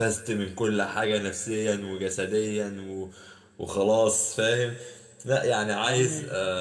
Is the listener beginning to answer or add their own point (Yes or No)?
No